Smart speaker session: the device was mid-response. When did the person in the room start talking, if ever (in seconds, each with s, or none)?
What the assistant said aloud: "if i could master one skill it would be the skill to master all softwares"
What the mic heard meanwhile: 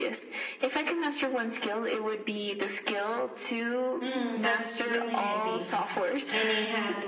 4.0 s